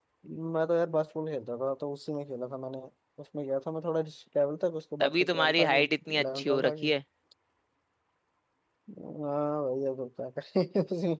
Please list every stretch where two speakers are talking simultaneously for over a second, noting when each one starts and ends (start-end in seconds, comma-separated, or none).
5.0-6.9